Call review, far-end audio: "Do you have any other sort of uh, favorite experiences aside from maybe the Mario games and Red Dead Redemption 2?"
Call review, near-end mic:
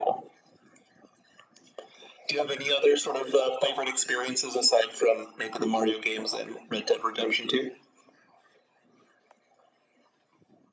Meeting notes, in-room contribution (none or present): none